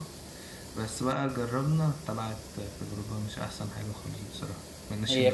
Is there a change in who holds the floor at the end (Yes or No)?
Yes